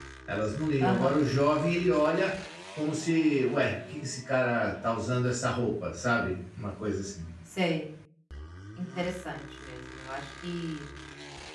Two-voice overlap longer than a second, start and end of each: none

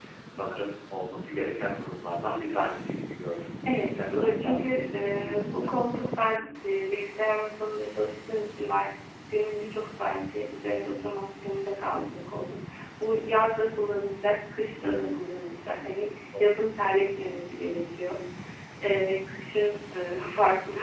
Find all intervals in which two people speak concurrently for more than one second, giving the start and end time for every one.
3.7-5.7

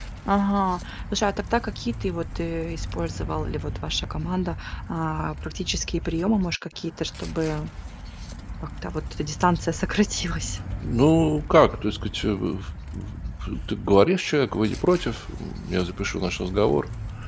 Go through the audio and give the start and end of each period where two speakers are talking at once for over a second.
none

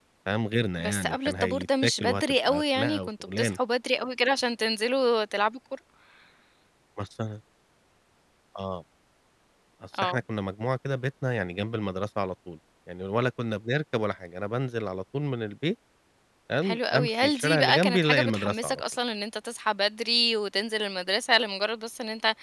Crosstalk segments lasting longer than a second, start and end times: 0.8-3.6, 16.6-18.8

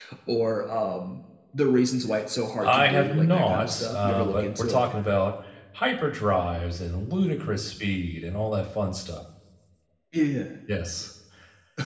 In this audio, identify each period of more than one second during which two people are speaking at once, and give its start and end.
2.6-4.8

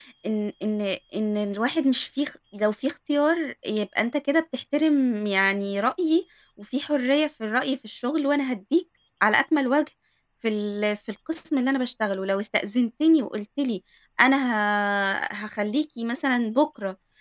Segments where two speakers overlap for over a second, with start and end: none

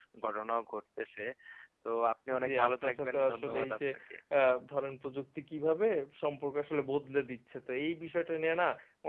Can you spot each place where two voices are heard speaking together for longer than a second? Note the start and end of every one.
2.4-3.8

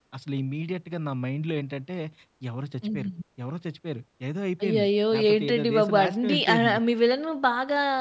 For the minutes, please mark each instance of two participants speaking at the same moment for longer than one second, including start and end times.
4.6-6.8

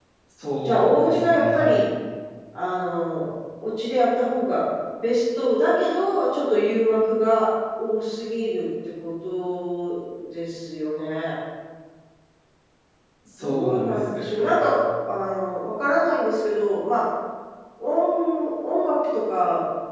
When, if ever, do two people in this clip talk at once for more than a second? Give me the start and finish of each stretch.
0.6-1.8, 13.4-14.7

